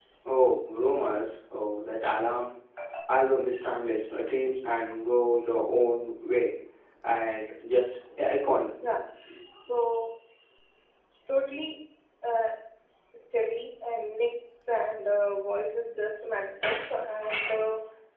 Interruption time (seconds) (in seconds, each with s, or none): none